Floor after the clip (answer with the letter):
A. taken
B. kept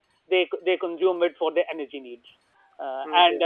B